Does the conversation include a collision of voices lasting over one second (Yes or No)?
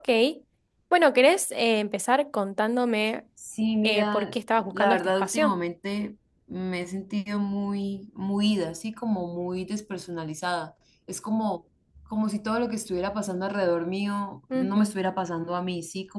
Yes